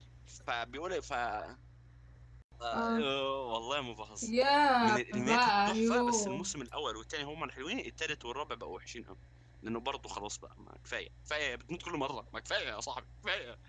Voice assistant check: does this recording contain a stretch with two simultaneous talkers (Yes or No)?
Yes